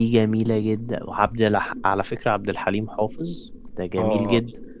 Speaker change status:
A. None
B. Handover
B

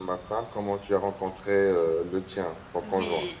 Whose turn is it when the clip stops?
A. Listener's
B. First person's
A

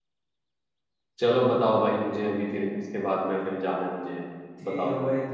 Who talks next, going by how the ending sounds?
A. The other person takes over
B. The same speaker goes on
A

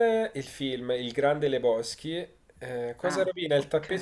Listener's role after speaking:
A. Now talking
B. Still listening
B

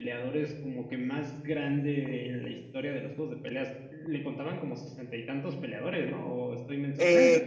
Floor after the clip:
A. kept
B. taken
B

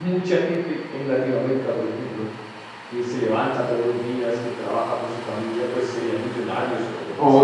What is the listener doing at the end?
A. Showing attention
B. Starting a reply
B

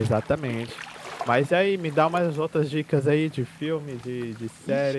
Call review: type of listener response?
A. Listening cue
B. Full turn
B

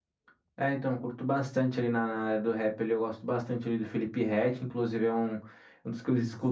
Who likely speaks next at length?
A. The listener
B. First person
B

